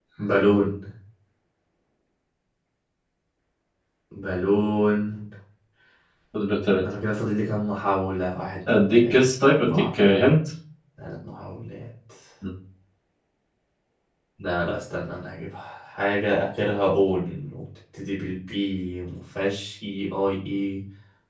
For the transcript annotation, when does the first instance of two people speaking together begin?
8.7 s

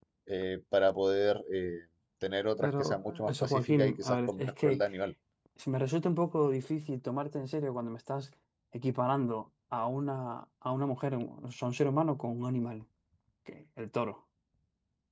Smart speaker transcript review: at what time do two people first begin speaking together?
2.6 s

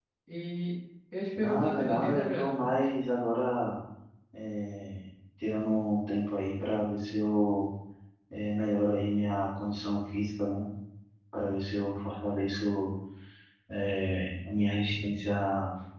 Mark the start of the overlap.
1.4 s

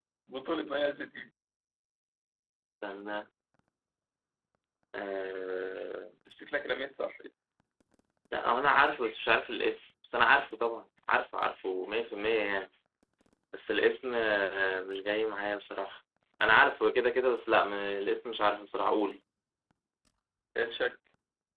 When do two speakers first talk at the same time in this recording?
none

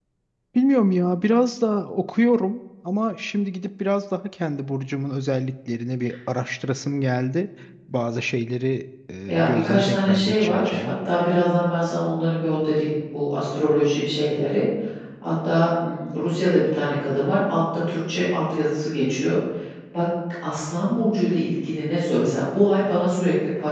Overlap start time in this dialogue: 9.3 s

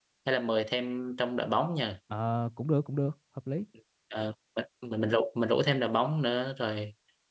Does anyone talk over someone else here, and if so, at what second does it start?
none

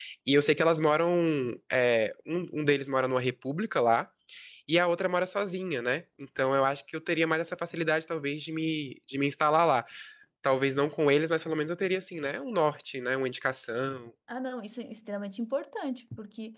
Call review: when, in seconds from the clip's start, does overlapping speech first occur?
none

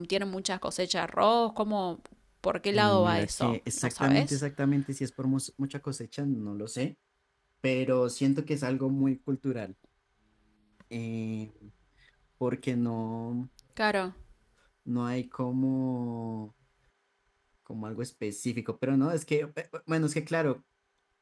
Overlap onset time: 2.7 s

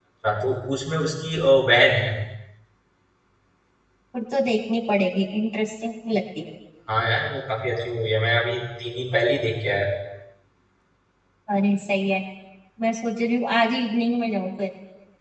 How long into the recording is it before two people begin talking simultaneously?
none

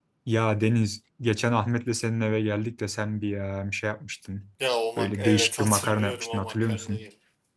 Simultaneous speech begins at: 5.0 s

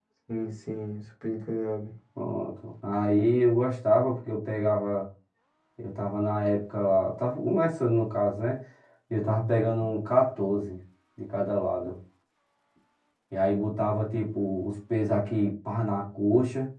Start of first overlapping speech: none

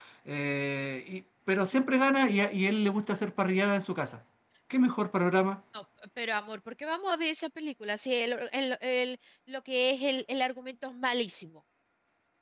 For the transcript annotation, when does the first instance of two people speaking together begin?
none

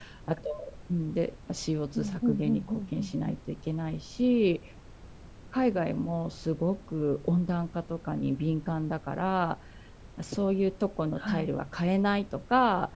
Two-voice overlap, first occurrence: 1.9 s

